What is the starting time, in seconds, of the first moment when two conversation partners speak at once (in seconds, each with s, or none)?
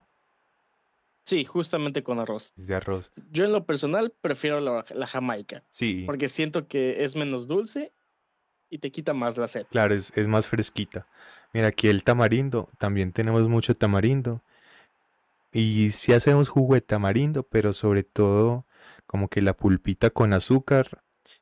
none